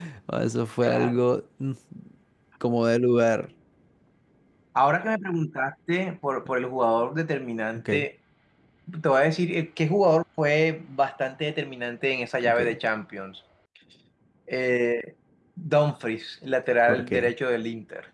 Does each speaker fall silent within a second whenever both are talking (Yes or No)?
Yes